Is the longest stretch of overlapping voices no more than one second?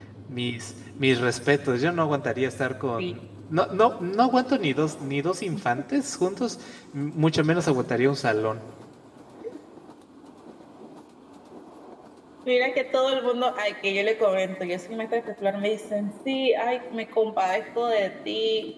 Yes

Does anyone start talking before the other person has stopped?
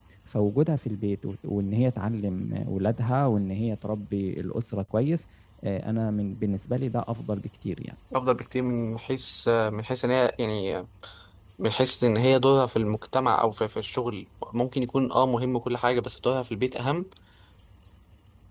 No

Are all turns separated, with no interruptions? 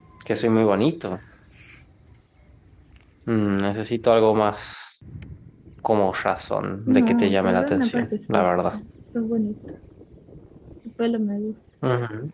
No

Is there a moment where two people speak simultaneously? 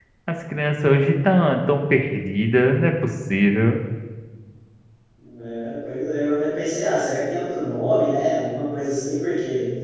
No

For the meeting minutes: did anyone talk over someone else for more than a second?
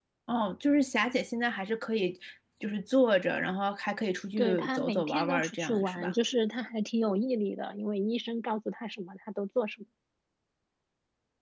Yes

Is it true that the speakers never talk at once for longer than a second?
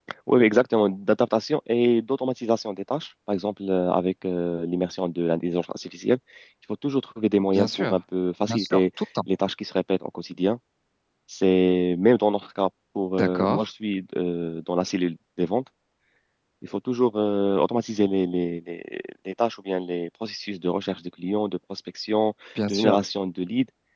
Yes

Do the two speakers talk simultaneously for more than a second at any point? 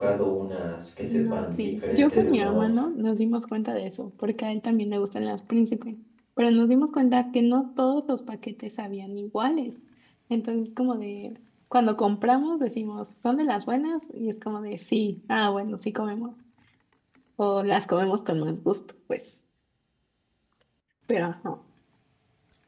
Yes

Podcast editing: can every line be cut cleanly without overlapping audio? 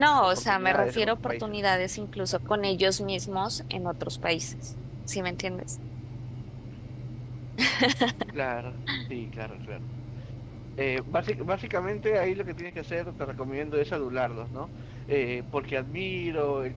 No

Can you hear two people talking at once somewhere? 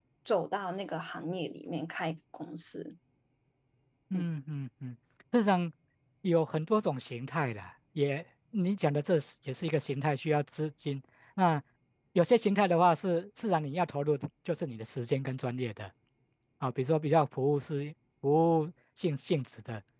No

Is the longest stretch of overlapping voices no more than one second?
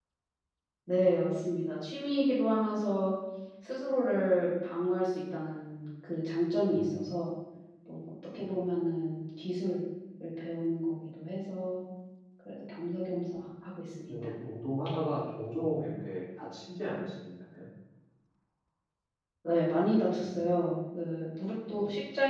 Yes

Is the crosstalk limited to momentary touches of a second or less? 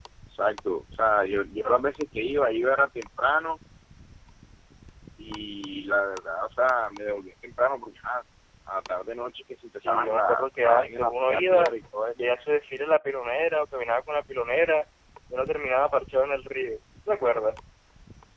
No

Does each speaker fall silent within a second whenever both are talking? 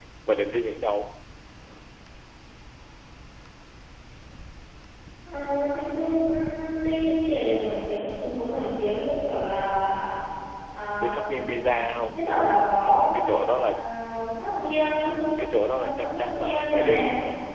No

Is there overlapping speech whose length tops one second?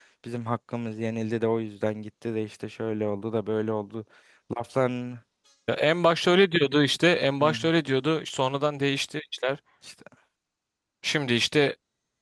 No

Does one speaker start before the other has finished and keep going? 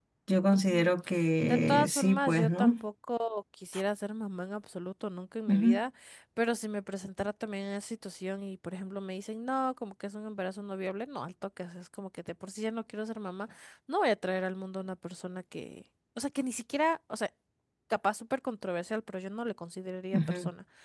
Yes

